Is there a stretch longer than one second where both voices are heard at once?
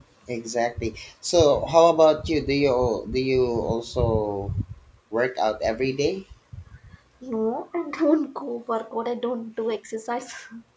No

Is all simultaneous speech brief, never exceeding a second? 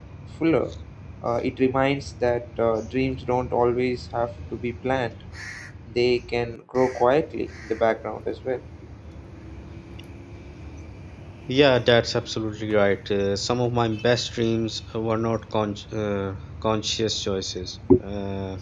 Yes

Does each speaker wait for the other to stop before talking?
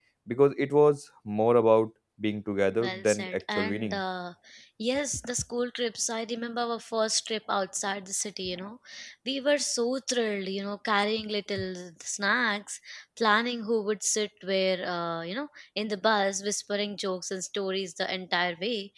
No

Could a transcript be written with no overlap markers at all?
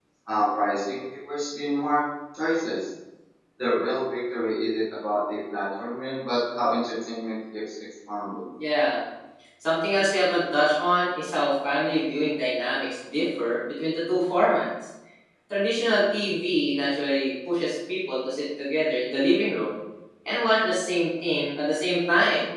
Yes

